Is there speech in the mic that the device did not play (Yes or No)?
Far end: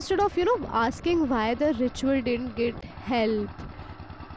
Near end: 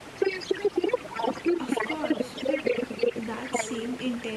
Yes